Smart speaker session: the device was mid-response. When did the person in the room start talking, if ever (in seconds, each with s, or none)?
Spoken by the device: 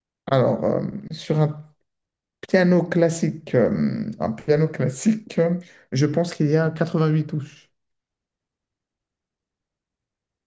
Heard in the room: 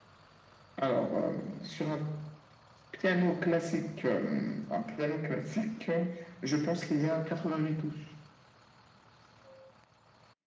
none